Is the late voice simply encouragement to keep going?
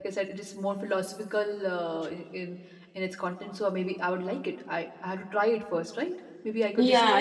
No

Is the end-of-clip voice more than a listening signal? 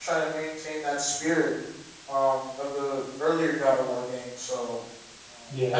No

